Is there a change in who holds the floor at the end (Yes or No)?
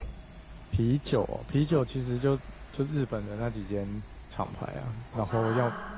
No